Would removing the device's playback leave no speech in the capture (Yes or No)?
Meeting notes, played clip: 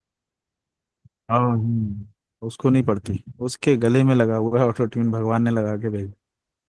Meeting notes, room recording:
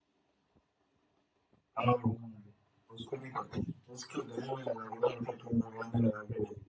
Yes